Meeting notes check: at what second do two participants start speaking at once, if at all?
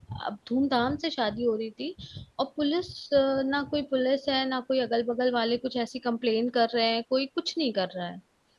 none

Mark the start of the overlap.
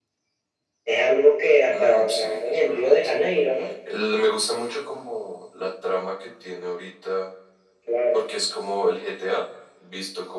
2 s

